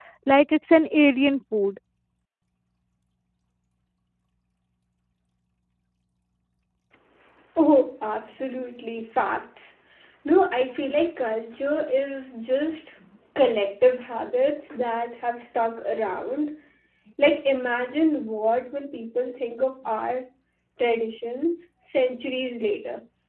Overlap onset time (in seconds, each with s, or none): none